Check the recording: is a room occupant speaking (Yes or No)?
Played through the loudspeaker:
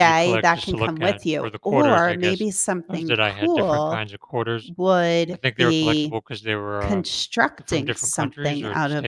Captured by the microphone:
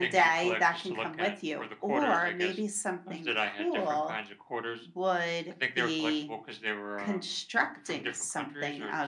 No